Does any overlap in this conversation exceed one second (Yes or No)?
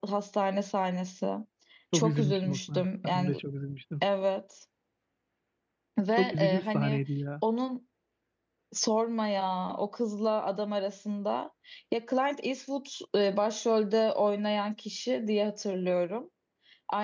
Yes